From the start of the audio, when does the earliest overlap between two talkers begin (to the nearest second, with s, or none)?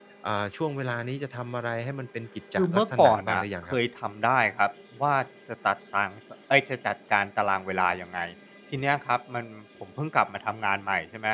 3 s